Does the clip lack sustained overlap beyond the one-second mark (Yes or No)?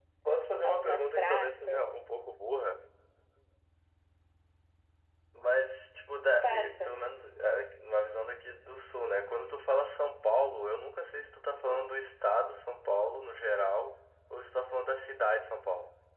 No